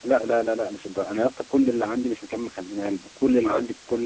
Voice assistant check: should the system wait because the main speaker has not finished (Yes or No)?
Yes